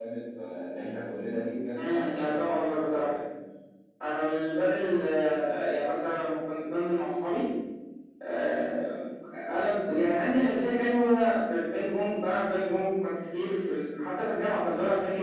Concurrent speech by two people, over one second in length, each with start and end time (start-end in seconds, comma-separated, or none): 1.8-3.1